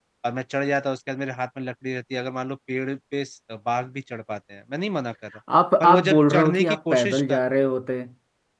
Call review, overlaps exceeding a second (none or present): present